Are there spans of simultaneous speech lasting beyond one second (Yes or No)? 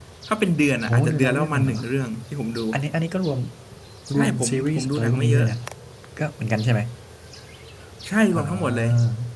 Yes